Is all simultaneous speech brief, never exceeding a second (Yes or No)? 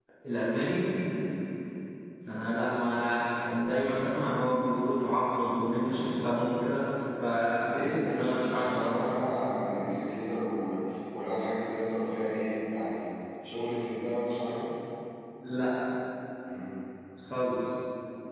No